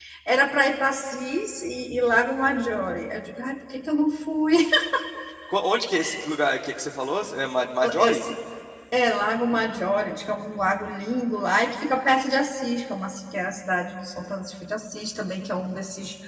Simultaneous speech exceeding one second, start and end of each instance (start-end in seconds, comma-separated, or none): none